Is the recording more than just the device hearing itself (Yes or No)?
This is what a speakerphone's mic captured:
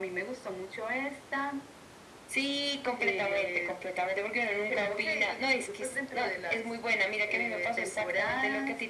No